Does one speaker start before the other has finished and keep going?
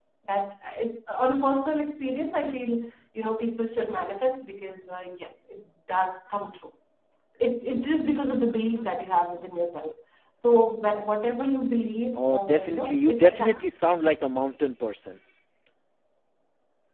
Yes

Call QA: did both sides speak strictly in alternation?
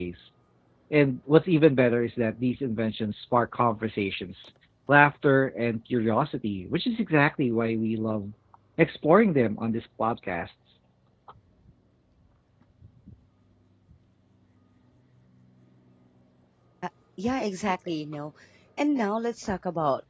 Yes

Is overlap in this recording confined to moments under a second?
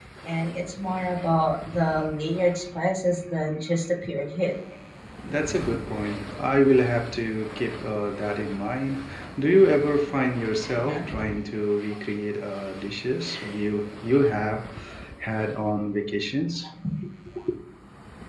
Yes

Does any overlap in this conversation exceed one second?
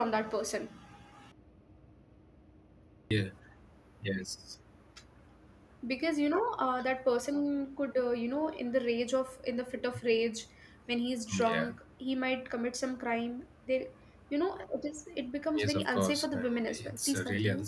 Yes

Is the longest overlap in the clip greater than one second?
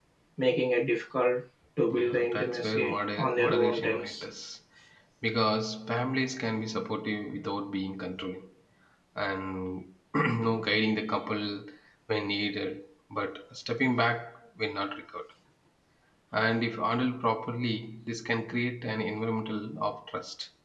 Yes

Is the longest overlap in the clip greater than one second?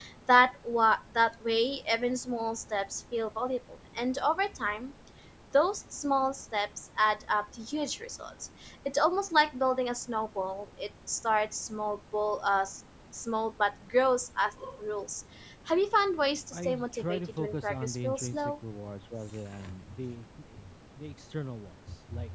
Yes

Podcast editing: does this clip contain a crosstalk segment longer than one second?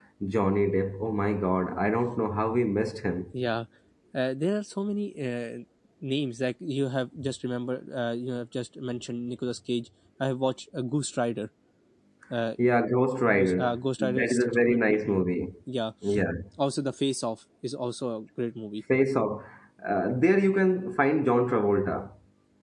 Yes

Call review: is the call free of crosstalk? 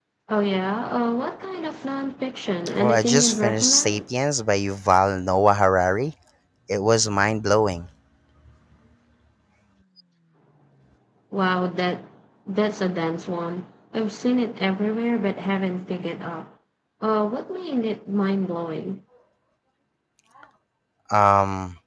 No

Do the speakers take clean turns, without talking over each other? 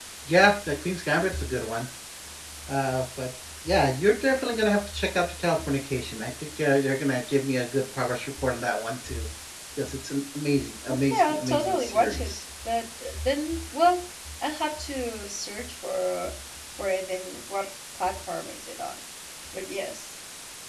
No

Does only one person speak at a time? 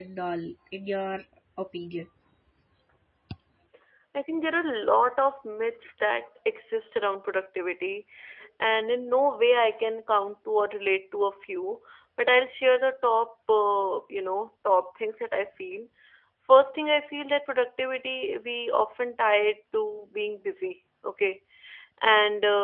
Yes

